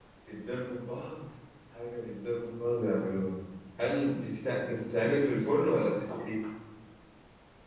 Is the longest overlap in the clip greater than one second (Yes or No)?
No